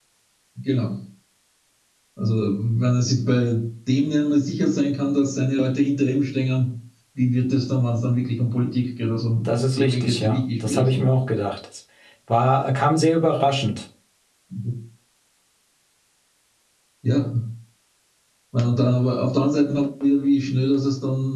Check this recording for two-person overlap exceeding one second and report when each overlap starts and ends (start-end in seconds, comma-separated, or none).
9.4-11.1